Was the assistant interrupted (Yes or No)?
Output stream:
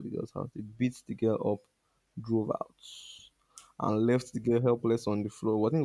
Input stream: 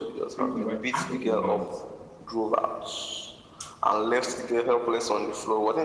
Yes